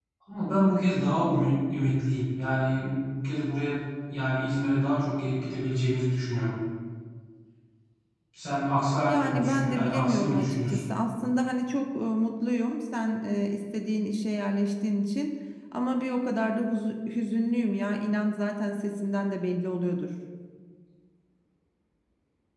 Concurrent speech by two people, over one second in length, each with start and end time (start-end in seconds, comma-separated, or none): 9.1-10.9